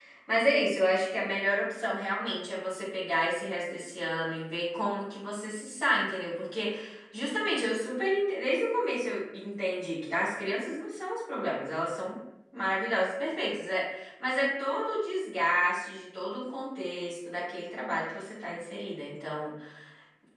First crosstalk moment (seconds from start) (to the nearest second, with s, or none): none